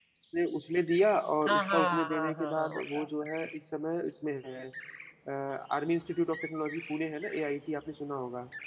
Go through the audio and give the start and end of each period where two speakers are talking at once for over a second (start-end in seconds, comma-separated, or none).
1.5-3.1